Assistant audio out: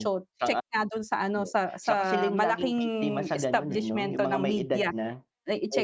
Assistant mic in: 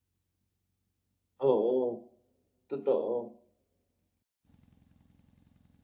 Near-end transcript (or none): Oo, totoo.